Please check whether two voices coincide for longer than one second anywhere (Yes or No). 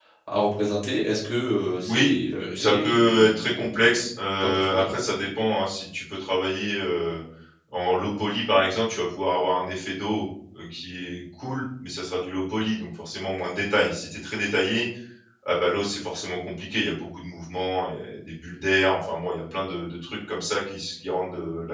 Yes